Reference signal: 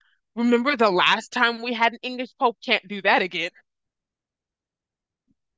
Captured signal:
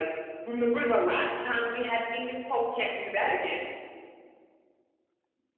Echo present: Yes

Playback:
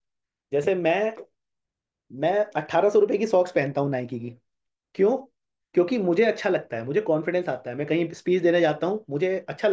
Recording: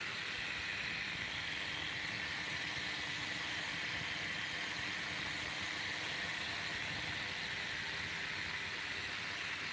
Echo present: No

